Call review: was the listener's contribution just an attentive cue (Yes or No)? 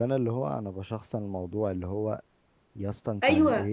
Yes